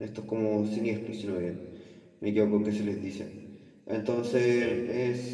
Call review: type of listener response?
listening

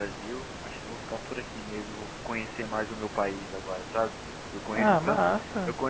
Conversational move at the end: listening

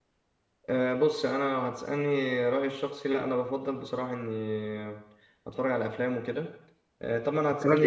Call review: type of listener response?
taking over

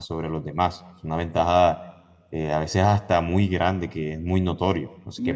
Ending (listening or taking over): taking over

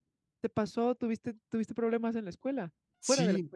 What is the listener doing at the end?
taking over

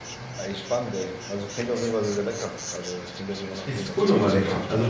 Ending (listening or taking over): taking over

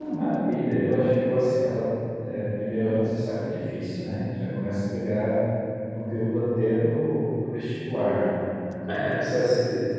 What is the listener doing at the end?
listening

